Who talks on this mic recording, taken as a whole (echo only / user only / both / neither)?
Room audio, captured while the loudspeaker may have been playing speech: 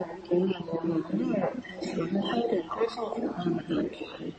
echo only